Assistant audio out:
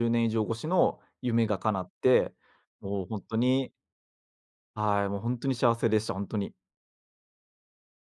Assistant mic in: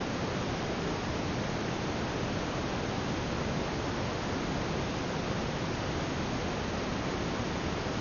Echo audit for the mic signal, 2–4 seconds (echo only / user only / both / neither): neither